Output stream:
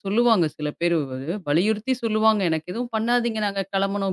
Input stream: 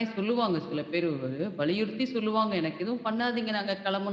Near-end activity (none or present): none